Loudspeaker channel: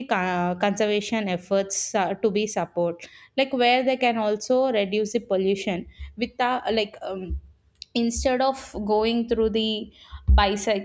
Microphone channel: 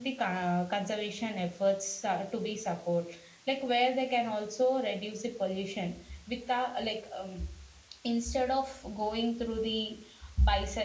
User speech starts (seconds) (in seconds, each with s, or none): none